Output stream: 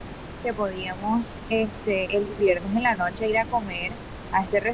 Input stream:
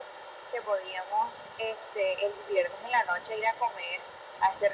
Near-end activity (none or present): none